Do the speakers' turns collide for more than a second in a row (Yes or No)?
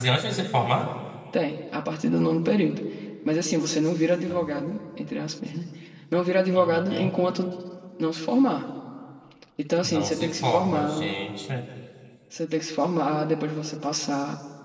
Yes